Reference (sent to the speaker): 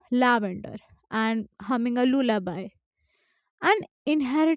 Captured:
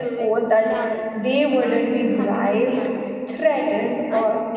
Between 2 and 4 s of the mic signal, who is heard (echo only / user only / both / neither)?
both